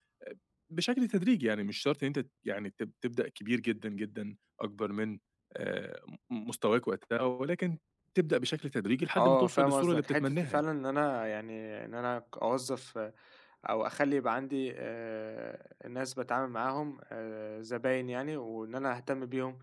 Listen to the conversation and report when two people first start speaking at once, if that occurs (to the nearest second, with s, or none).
9 s